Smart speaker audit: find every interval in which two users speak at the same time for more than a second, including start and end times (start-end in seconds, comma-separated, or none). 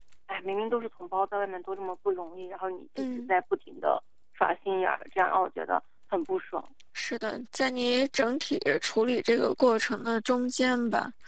none